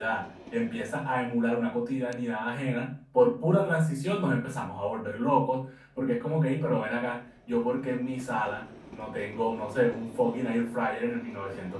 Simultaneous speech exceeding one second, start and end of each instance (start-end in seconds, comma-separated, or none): none